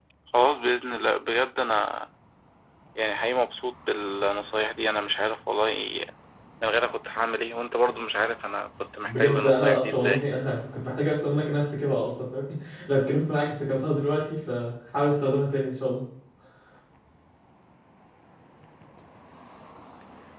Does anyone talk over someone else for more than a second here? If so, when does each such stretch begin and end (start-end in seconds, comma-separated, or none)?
9.1-10.3